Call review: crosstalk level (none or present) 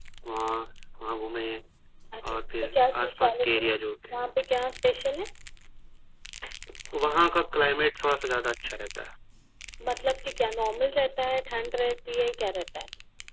present